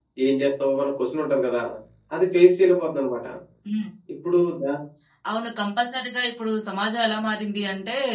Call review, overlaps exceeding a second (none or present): none